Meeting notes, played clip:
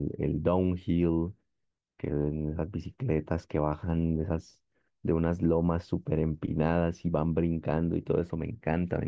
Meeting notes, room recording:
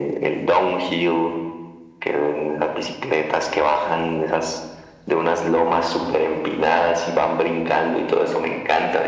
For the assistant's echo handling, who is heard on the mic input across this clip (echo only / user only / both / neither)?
echo only